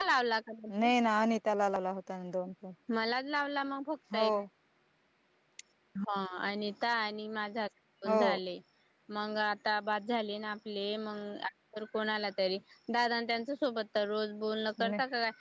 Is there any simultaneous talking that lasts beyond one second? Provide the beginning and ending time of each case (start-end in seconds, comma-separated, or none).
none